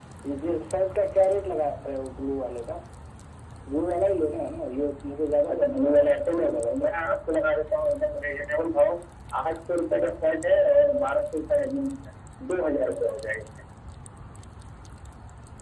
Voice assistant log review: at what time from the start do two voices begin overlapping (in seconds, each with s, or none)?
5.5 s